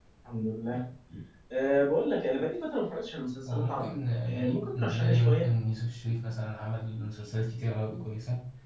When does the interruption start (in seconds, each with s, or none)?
3.5 s